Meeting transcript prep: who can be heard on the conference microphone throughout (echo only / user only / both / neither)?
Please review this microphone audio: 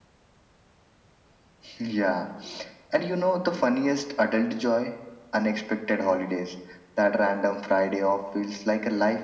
echo only